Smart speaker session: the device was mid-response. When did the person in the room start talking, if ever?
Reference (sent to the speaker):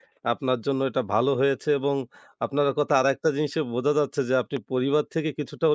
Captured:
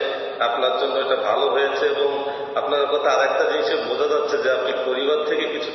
none

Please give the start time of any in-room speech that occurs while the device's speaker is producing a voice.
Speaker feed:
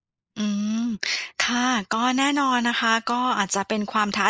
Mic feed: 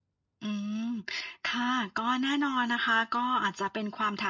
none

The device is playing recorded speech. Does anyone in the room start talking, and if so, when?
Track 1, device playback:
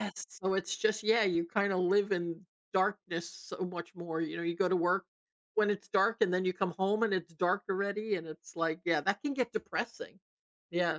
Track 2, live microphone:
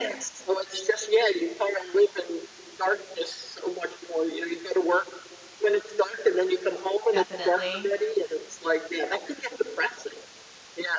7 s

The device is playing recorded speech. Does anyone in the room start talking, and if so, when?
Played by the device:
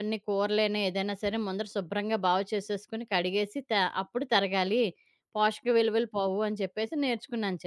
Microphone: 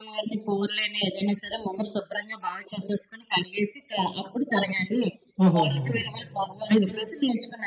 5 s

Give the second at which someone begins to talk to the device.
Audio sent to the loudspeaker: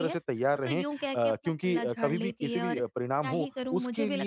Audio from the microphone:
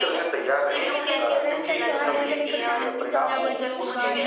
1 s

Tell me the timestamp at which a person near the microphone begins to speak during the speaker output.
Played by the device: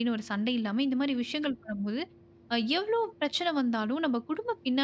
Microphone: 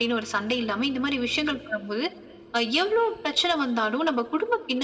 none

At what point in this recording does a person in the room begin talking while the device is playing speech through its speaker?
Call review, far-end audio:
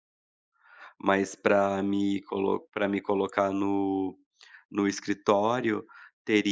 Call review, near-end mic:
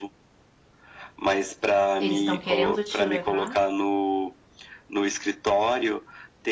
2 s

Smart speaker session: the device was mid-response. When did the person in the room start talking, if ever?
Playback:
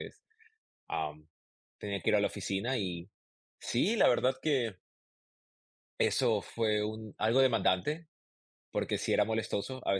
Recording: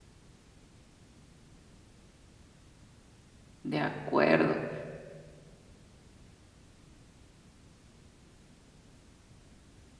4 s

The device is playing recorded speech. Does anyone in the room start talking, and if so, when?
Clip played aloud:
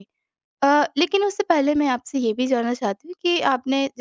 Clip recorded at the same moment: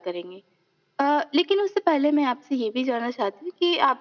none

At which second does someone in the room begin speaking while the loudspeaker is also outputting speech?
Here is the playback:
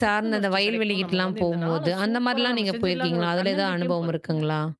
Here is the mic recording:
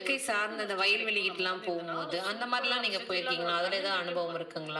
none

